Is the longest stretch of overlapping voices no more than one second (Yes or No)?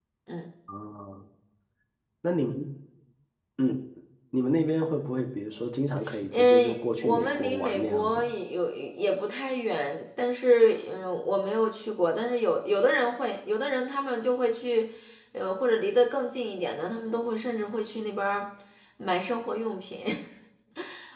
No